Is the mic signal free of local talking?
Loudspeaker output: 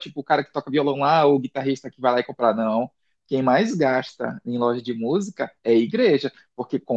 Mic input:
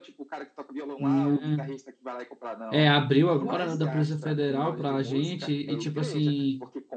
No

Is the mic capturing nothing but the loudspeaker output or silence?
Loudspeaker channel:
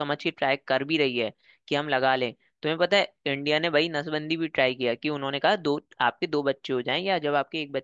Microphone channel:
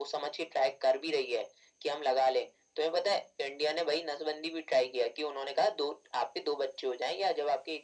Yes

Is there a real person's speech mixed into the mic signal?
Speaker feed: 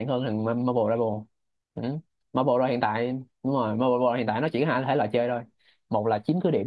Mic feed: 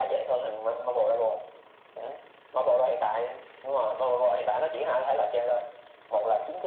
No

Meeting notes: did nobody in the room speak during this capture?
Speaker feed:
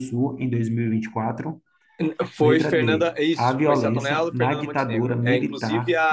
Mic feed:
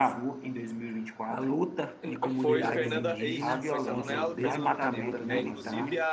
No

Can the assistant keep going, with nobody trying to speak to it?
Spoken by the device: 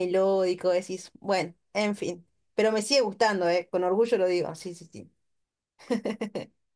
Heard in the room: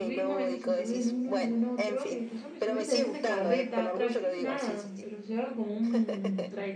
No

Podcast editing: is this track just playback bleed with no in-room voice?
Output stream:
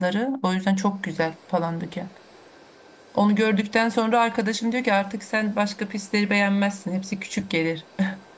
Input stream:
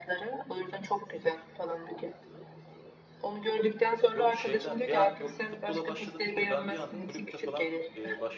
No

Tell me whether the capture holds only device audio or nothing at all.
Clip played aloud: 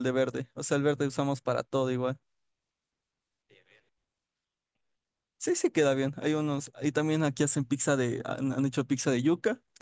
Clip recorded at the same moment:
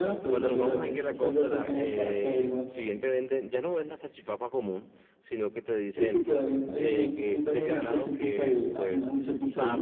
No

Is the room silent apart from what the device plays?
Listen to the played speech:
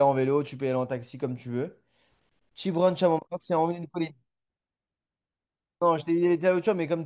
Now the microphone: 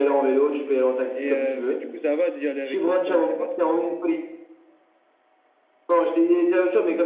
No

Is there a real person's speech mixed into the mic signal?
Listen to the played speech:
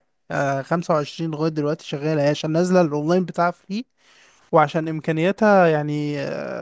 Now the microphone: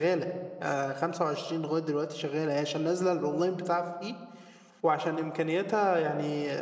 No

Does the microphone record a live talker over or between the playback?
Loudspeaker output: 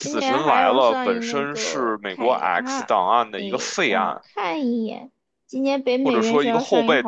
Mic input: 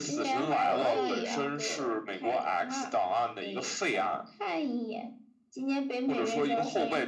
Yes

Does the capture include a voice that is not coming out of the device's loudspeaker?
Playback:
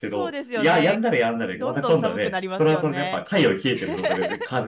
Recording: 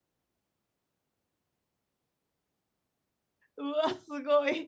Yes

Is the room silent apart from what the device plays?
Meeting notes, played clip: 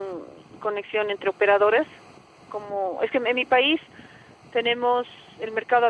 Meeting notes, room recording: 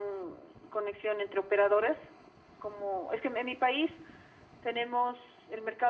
Yes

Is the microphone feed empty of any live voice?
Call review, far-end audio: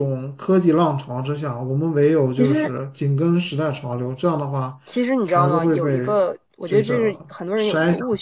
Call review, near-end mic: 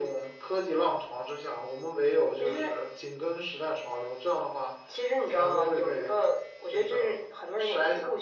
Yes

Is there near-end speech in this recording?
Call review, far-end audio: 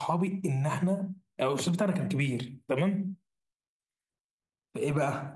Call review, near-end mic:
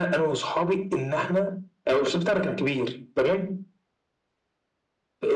No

